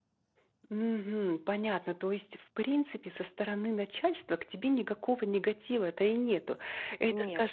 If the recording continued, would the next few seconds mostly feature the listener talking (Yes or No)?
No